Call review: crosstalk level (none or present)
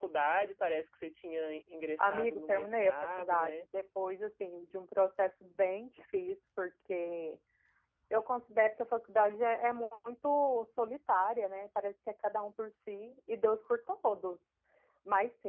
present